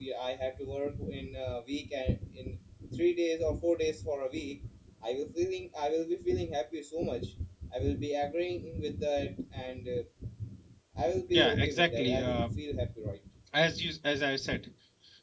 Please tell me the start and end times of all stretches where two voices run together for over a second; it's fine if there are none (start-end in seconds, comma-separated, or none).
11.3-12.5